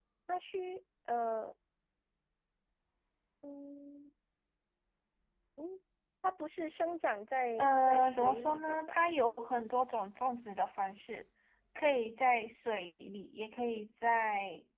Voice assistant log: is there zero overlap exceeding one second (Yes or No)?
No